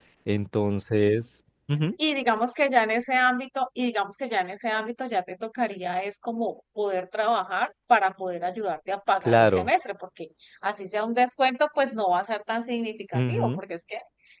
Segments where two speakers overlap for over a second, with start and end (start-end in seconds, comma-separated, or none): none